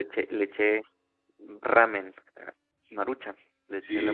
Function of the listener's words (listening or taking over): listening